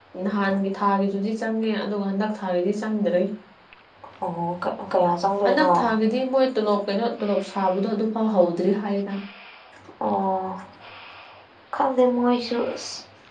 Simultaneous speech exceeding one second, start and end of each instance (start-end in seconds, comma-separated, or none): none